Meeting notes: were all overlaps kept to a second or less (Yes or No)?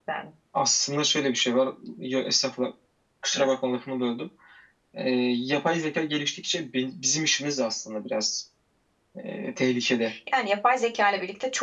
Yes